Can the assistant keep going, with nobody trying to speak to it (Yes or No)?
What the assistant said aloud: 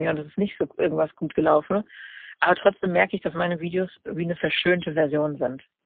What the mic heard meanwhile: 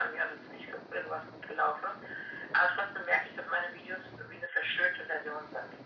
Yes